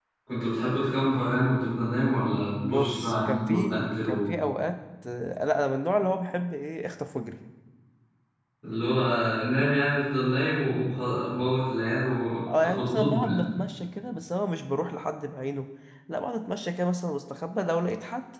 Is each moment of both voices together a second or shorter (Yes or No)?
No